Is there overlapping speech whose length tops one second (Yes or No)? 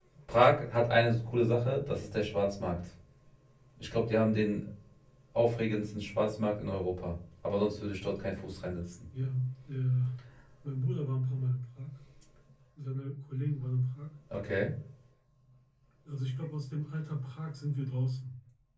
No